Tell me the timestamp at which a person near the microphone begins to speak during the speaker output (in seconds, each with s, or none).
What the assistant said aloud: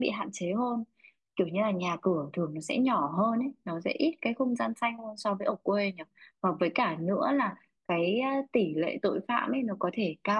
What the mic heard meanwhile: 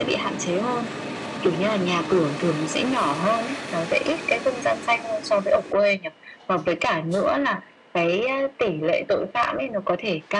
none